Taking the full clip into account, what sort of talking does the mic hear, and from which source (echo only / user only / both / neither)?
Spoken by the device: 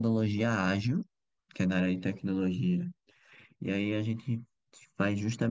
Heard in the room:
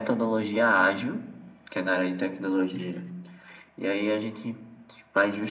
echo only